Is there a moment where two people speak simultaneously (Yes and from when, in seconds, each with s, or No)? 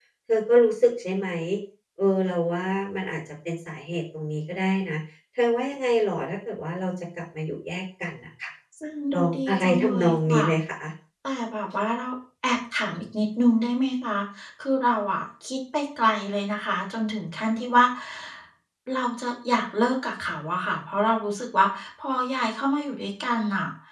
Yes, from 9.1 s